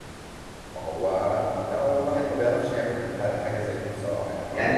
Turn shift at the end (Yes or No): Yes